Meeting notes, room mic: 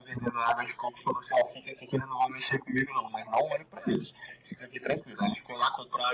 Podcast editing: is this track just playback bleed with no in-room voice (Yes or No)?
Yes